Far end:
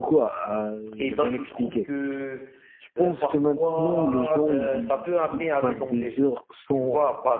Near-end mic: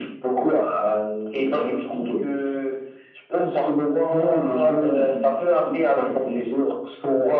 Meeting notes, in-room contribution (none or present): none